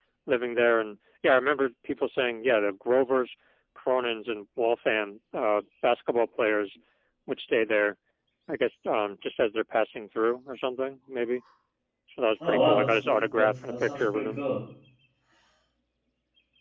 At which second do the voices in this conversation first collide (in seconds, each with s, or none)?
12.5 s